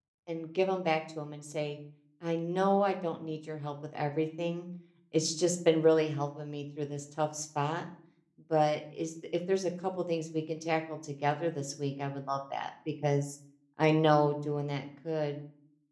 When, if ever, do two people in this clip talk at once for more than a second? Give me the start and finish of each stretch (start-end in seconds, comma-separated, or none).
none